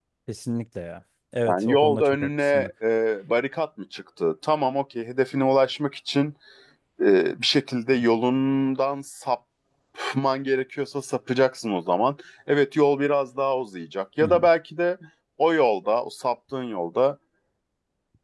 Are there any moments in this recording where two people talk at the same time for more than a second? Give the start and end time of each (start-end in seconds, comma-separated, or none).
1.5-2.7